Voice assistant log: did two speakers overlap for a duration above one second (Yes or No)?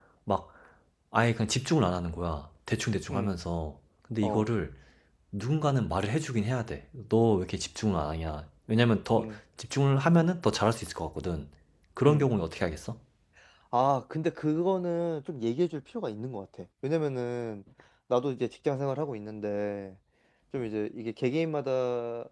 No